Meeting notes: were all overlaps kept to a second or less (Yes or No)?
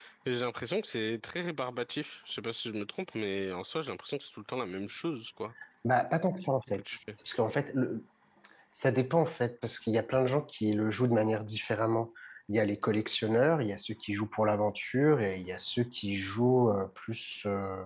Yes